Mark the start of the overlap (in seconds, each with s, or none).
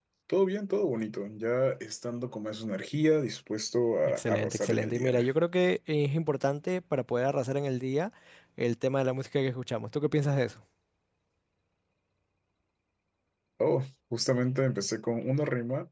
4.0 s